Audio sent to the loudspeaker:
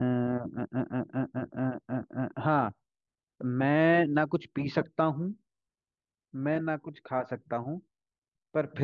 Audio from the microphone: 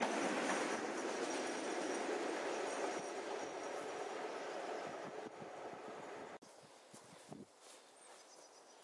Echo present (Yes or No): No